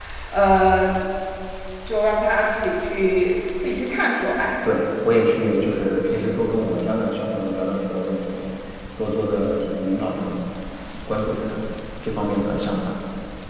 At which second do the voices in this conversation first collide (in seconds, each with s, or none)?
none